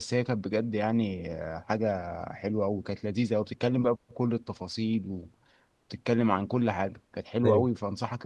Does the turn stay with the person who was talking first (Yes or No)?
Yes